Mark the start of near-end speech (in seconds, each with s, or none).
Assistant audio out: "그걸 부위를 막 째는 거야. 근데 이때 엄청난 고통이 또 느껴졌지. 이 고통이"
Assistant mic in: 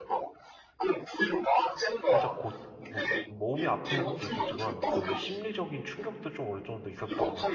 2.1 s